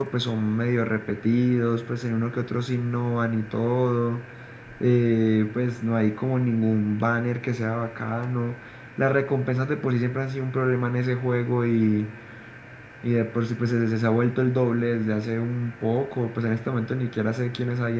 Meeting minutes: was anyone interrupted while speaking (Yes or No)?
No